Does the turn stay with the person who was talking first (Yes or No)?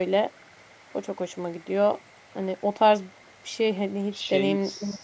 No